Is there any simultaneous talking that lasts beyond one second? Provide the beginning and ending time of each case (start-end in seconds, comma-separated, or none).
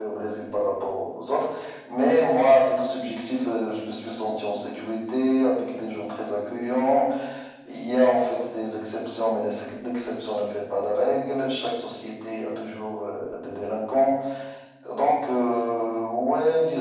none